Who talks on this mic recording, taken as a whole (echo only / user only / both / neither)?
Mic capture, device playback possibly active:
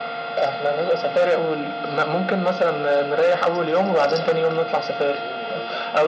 both